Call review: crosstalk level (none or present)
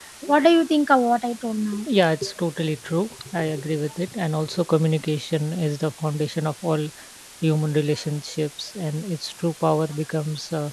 none